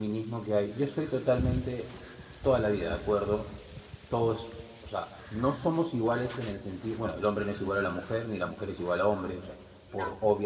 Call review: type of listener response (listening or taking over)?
listening